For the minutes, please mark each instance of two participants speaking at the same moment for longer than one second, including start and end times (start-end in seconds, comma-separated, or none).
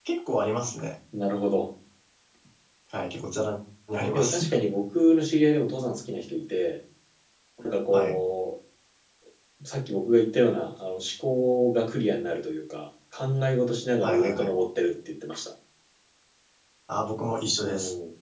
none